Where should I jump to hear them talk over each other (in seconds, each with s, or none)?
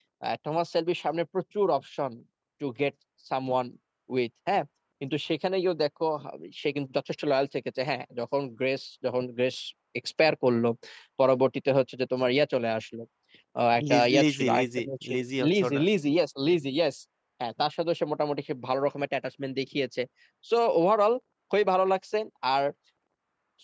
13.9 s